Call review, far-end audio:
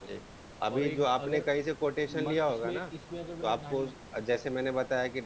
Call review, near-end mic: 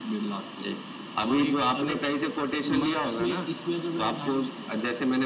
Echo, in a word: present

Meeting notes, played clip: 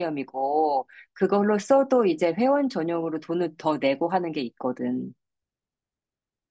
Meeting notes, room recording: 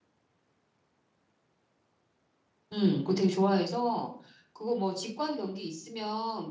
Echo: none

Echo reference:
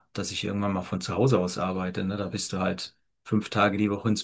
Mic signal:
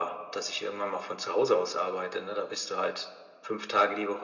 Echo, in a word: present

